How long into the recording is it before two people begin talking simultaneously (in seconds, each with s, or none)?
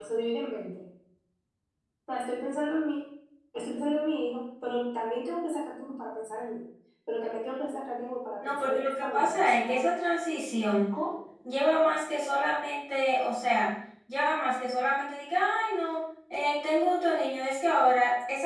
8.4 s